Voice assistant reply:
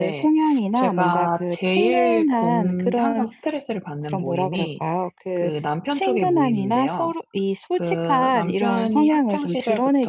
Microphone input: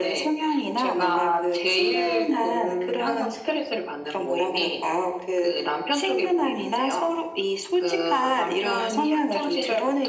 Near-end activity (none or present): none